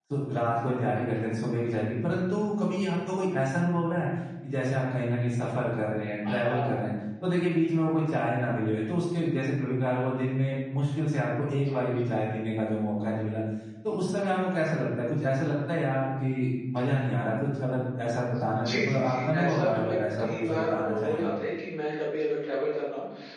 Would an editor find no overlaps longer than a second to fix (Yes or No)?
No